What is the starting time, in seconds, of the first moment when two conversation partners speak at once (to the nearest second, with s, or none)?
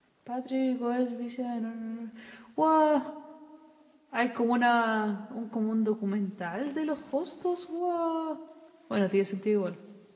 none